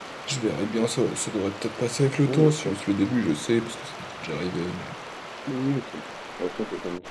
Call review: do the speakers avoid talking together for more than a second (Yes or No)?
Yes